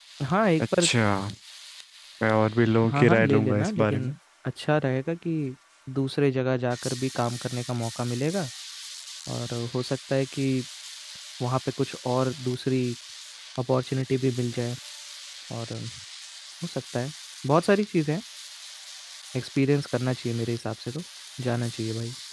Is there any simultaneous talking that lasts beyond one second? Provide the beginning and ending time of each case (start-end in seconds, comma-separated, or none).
2.9-4.2